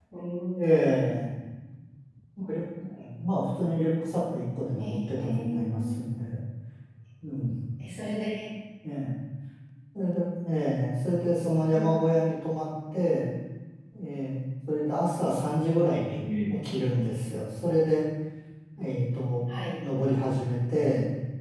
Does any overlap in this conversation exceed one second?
Yes, from 4.8 s

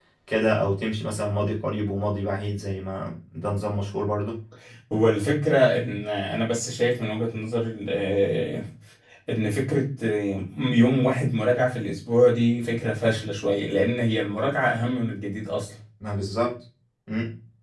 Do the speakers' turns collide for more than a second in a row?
No

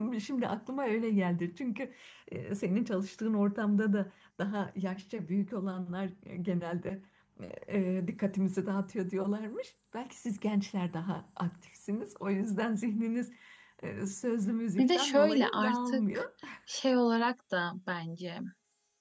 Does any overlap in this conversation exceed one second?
Yes, from 14.8 s

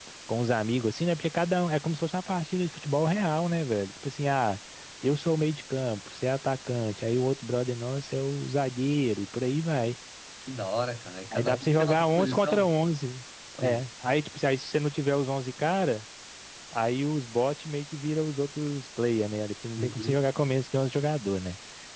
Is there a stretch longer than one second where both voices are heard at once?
Yes, from 11.3 s

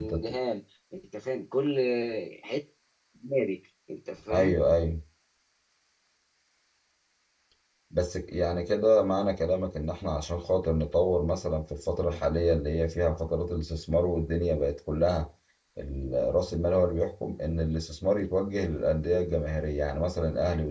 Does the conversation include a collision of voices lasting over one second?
No

